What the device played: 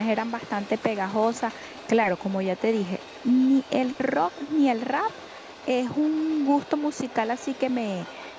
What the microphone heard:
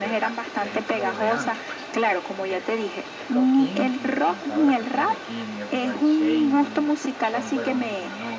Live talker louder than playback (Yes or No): No